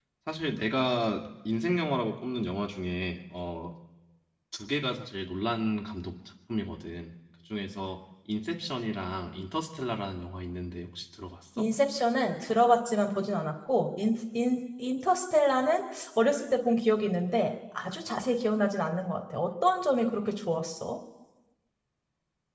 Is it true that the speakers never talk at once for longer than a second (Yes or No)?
Yes